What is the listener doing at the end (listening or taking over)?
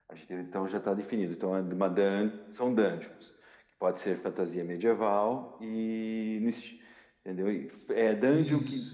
listening